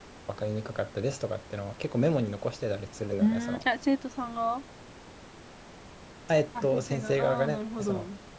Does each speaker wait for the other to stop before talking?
No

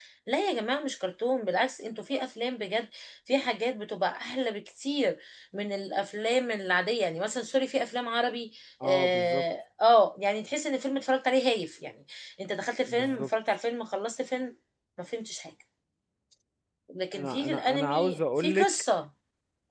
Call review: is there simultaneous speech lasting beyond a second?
Yes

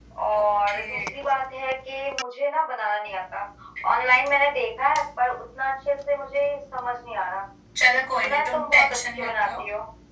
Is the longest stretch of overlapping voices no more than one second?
No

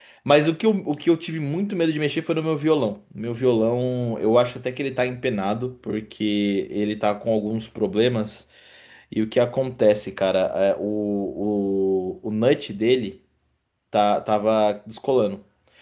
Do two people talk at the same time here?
No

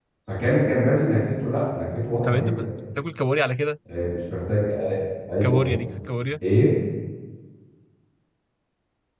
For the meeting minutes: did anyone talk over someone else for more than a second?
No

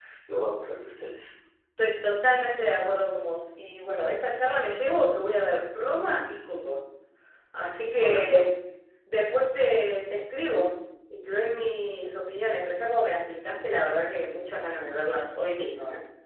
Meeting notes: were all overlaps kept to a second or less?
Yes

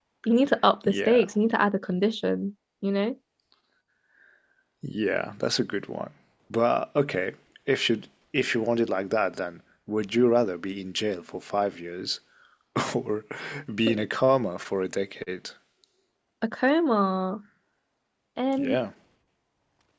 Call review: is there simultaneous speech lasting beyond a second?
No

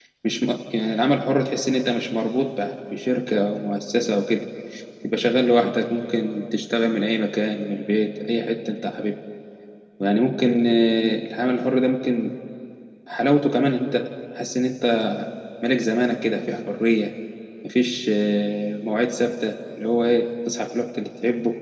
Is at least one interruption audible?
No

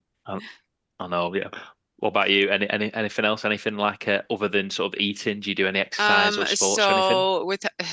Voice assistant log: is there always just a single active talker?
No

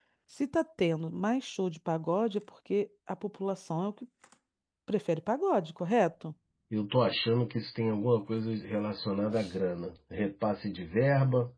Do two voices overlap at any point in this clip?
No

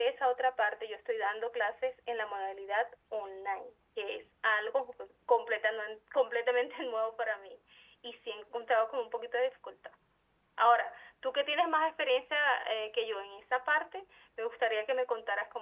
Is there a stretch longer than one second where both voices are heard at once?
No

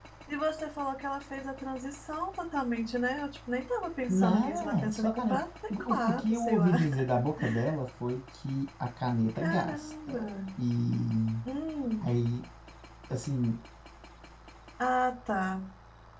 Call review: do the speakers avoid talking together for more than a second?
No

